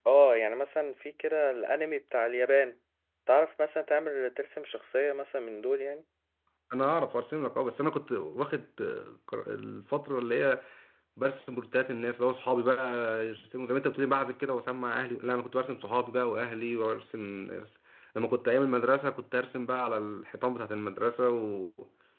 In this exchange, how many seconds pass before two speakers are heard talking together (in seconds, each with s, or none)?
none